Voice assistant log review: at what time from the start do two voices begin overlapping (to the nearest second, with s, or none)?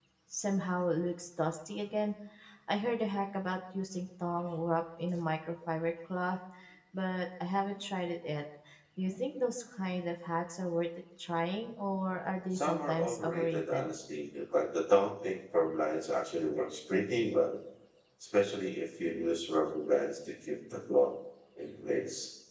13 s